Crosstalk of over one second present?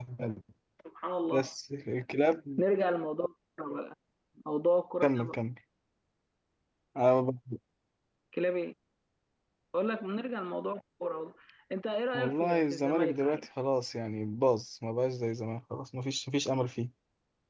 Yes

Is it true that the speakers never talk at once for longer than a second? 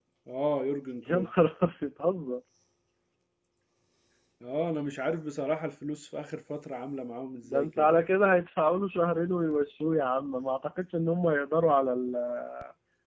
Yes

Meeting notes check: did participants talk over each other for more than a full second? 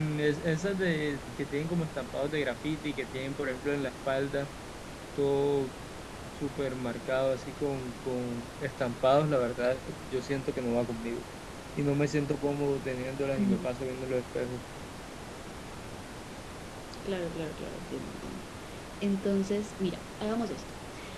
No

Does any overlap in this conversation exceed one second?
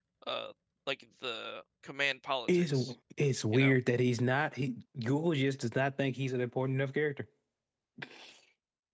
No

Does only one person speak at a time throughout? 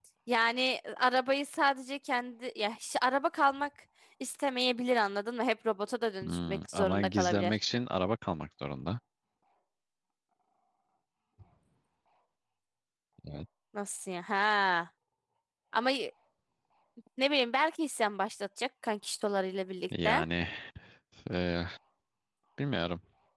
No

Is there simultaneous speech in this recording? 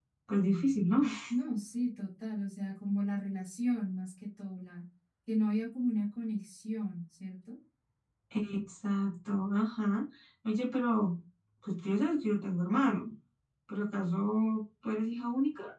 No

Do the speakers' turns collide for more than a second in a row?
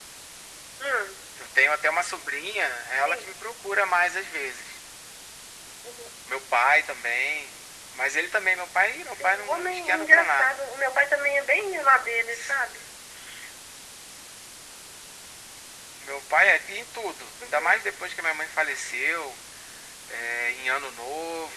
Yes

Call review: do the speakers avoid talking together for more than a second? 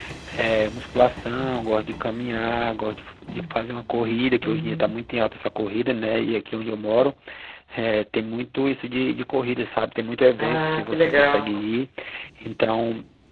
No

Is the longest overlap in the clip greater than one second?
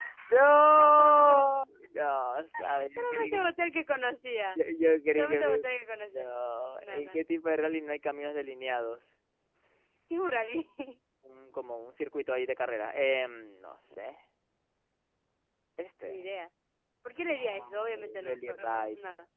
Yes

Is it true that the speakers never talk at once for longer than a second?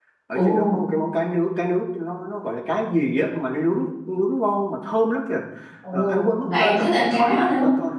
No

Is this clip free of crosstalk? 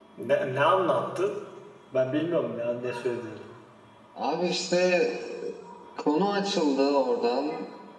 Yes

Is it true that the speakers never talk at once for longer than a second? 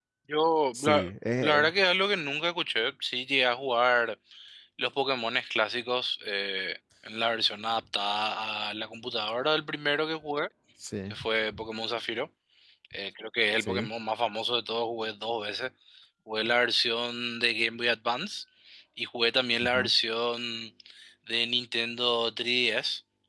Yes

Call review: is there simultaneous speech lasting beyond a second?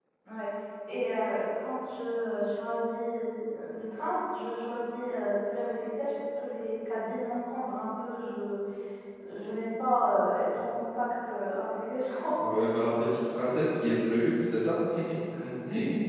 No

